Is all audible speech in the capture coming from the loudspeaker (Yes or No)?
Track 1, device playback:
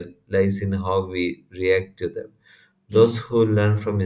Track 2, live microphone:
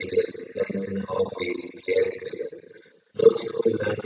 Yes